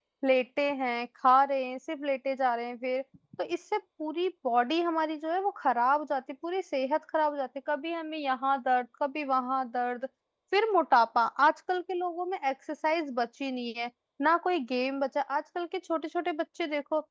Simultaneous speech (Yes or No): No